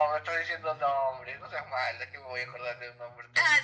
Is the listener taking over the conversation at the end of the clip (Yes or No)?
Yes